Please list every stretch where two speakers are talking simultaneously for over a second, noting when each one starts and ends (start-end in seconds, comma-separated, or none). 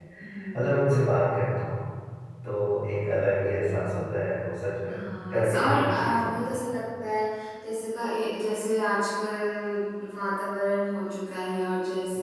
5.3-6.6